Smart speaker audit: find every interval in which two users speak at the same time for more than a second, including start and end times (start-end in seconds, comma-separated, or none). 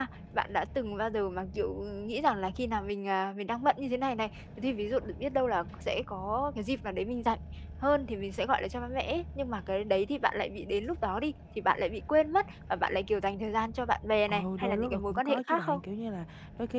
14.3-15.8